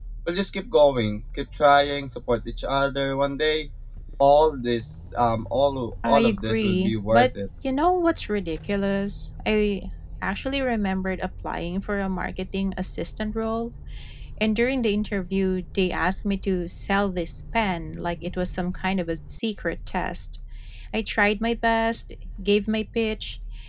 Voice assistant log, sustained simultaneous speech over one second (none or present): present